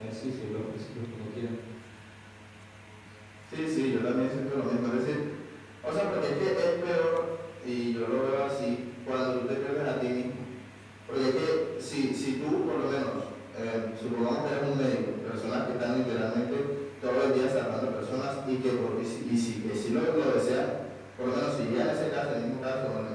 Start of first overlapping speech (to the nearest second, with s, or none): none